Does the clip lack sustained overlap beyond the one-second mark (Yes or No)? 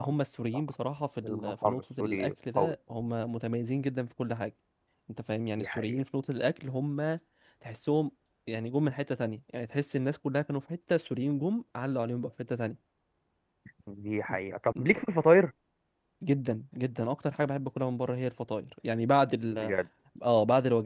No